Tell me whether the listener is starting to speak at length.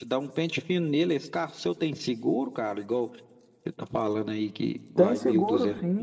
Yes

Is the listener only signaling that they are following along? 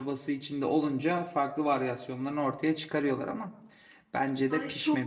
No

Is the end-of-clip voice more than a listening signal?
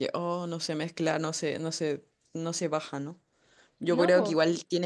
No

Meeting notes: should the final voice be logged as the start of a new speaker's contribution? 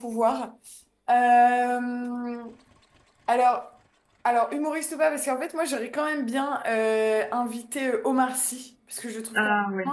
No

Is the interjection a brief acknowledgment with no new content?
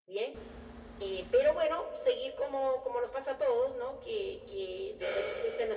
Yes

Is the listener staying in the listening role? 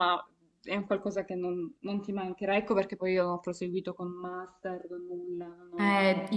No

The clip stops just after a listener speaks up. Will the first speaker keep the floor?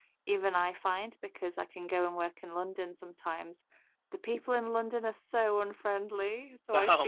Yes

